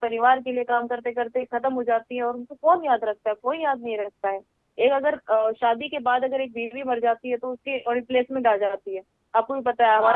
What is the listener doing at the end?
taking over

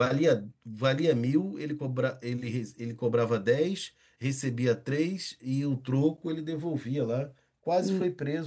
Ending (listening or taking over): taking over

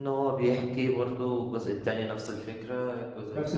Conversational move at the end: listening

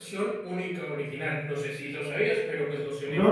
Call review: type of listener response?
taking over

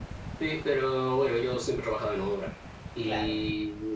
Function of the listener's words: listening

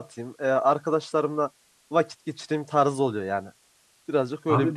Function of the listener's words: taking over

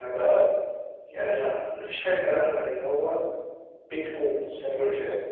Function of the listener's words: taking over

